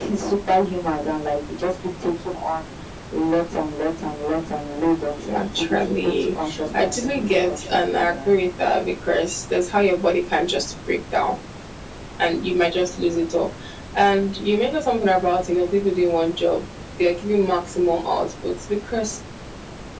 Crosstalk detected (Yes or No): Yes